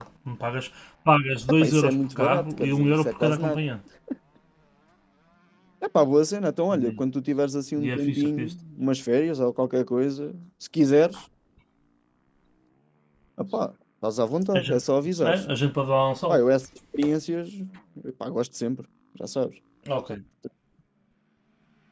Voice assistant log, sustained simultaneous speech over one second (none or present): present